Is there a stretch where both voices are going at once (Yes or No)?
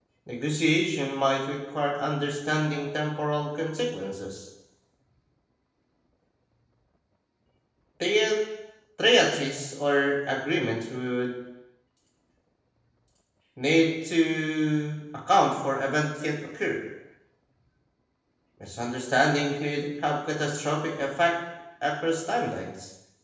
No